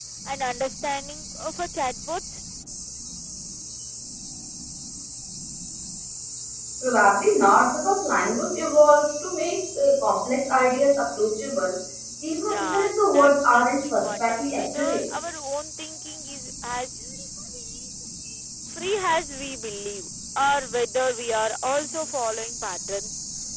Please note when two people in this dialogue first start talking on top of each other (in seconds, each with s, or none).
12.4 s